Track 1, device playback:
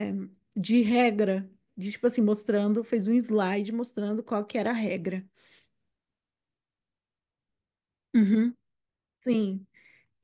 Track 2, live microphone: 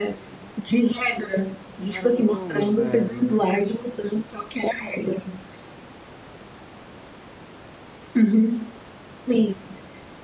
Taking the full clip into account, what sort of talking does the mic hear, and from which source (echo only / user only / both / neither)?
both